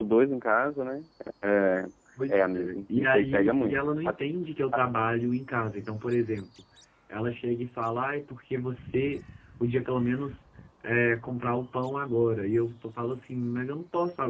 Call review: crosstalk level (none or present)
present